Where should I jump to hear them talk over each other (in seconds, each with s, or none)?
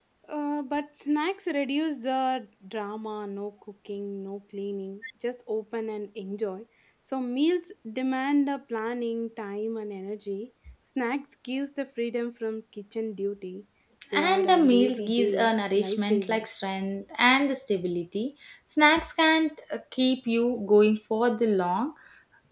14.2 s